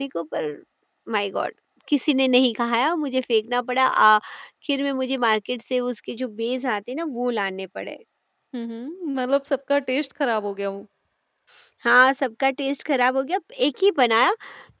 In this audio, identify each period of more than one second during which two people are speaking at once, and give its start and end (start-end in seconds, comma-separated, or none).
none